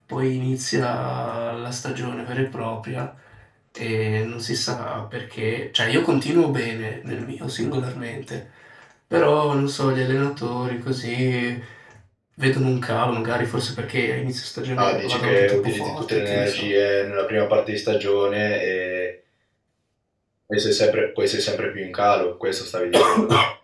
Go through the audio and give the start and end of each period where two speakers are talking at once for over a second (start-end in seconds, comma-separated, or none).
14.8-16.7